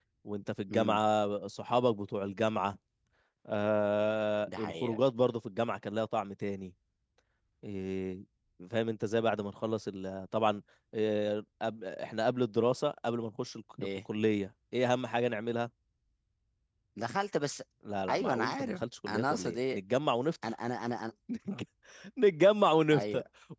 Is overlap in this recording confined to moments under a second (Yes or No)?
No